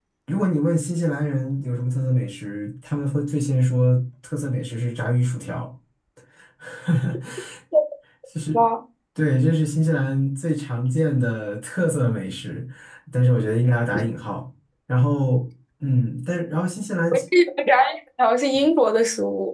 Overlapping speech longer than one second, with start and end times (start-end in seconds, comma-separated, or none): none